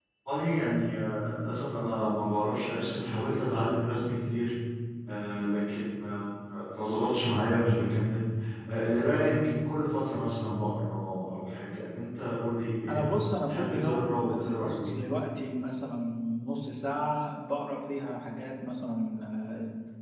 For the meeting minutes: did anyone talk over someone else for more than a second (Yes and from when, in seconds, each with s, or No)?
Yes, from 12.9 s